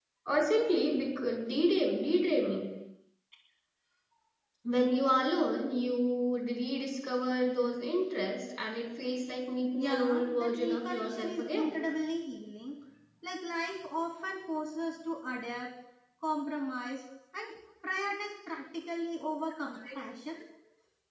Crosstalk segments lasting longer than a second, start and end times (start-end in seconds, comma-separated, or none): 9.8-11.7